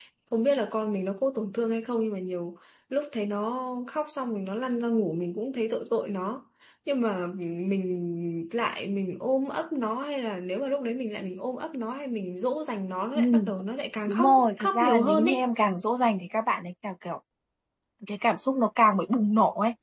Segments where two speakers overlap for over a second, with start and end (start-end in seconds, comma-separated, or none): 14.1-15.4